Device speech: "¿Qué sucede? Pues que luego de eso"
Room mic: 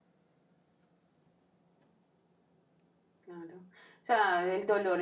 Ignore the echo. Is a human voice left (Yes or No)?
Yes